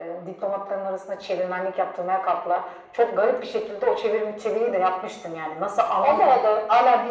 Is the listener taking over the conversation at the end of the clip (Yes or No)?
No